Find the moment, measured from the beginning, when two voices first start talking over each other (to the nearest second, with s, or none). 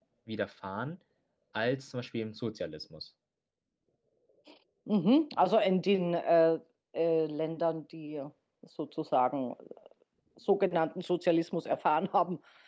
none